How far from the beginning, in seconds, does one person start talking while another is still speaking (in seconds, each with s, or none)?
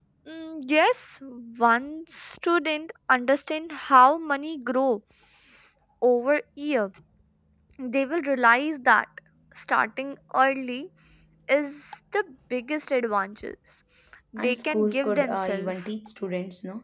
14.4 s